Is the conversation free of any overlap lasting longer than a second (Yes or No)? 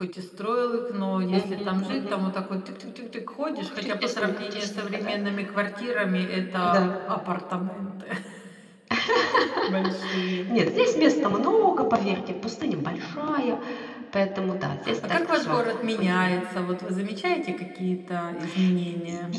No